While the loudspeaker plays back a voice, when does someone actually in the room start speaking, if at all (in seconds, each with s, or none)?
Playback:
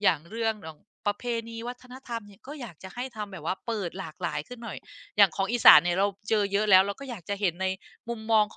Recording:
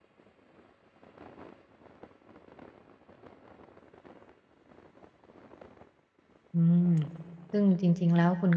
6.5 s